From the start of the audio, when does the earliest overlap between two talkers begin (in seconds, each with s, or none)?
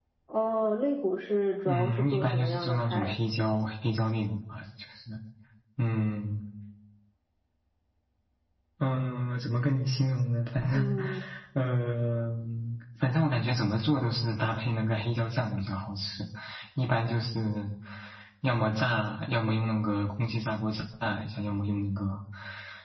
1.7 s